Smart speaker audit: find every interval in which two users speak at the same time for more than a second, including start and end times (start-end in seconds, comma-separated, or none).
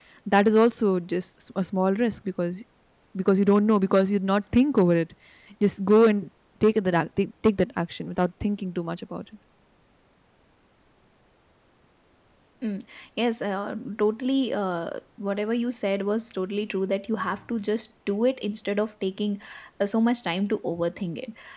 none